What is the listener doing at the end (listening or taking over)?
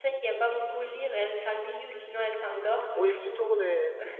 taking over